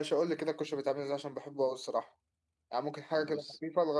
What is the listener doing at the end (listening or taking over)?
listening